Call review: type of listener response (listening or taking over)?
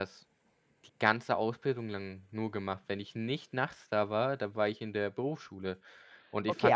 taking over